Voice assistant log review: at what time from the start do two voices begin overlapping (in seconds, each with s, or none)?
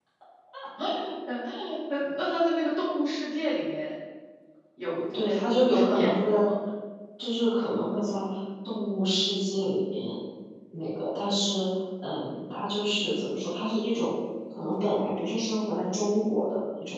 5.1 s